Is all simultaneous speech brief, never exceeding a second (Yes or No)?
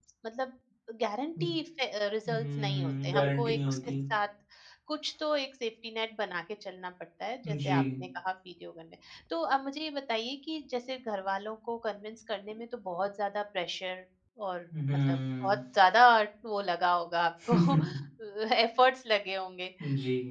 No